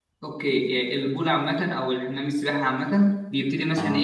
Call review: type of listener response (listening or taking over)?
listening